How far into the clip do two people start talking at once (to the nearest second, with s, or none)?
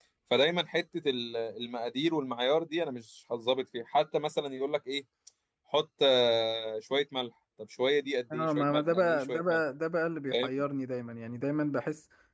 8 s